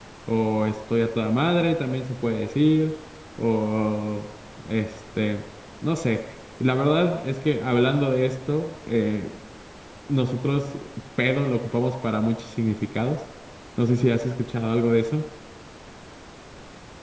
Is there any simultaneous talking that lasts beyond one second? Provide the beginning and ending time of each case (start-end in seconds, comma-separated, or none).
none